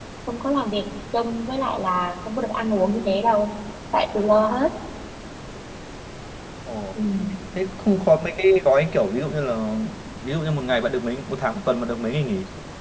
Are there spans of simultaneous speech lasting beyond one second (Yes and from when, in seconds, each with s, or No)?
No